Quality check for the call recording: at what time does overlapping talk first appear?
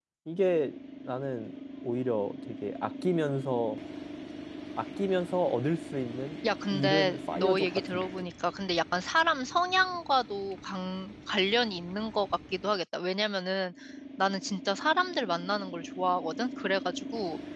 6.7 s

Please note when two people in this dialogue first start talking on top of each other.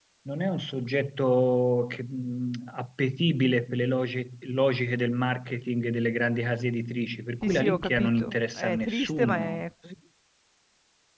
7.4 s

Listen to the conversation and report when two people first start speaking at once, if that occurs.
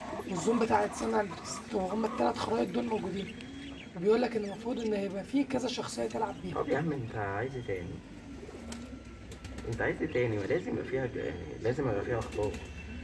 none

